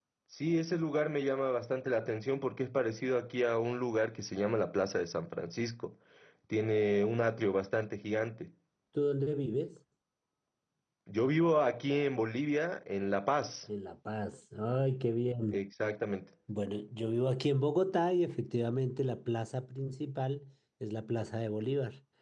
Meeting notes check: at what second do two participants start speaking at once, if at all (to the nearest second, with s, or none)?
none